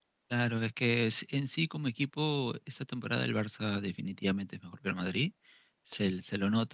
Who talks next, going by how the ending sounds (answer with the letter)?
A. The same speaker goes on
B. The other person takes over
A